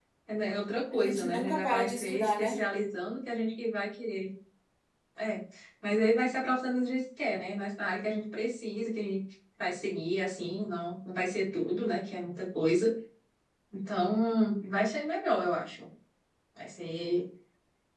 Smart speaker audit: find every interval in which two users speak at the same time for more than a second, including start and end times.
0.9-2.6

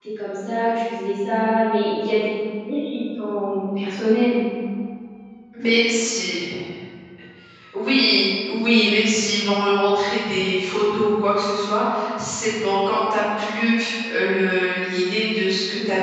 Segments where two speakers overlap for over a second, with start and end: none

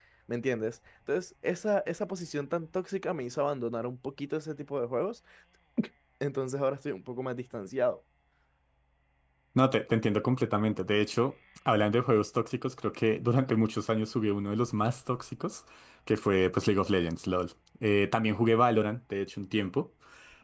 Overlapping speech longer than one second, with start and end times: none

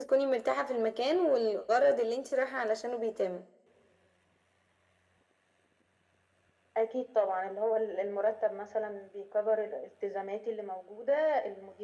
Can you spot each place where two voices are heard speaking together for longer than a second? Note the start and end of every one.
none

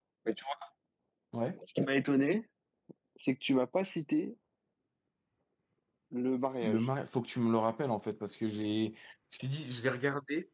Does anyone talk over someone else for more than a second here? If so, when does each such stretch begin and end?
none

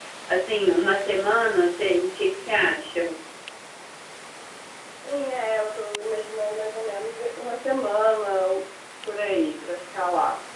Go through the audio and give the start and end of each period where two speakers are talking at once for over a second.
none

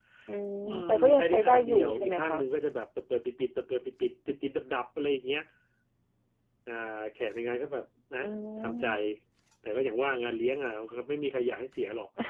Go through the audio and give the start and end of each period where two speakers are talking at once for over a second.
0.6-2.4

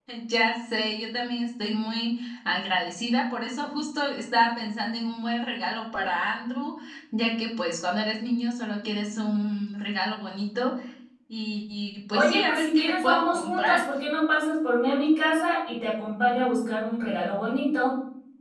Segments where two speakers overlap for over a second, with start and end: 12.1-13.8

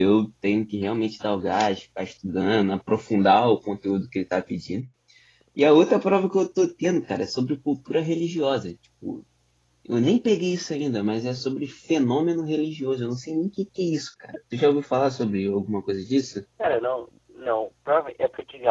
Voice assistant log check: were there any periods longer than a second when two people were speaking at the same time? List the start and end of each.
none

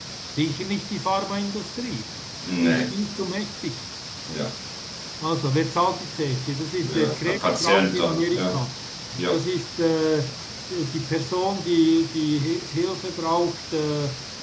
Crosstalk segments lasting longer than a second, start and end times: 6.8-8.6

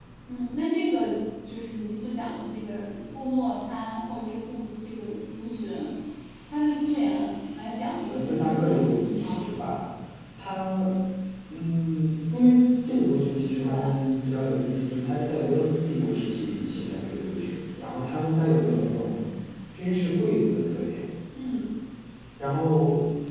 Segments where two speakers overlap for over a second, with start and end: 8.1-9.5

